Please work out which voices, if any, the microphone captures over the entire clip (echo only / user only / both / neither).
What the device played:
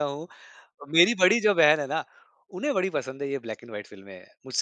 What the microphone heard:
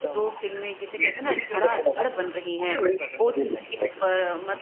both